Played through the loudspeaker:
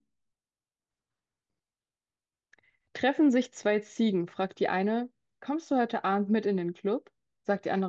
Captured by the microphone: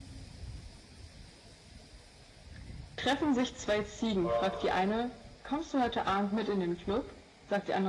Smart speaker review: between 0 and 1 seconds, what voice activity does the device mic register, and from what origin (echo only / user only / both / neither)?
neither